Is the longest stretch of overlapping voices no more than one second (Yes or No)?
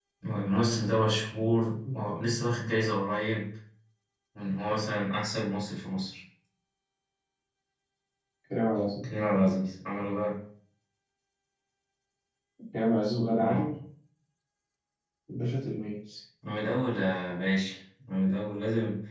Yes